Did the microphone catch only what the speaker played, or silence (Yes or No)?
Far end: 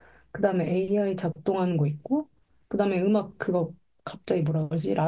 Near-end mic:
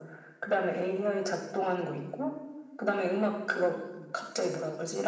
No